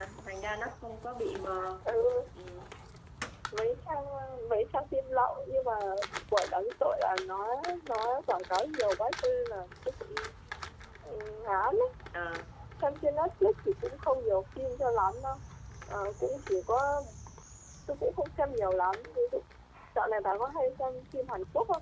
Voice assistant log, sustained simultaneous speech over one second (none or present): none